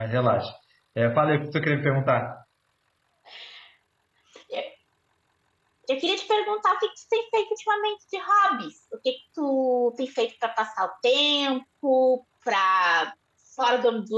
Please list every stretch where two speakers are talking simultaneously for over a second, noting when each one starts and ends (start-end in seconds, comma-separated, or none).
none